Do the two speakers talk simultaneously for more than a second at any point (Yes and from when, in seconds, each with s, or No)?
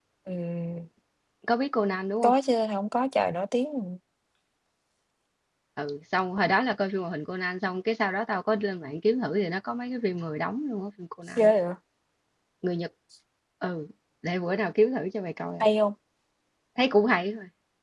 No